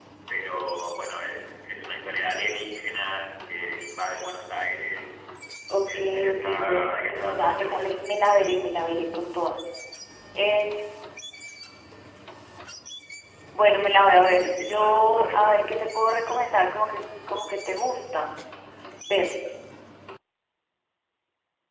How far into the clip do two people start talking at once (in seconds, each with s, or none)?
5.8 s